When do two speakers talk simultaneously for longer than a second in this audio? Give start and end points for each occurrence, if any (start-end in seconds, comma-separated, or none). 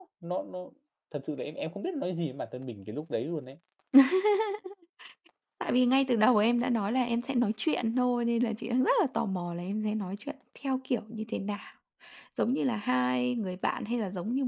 none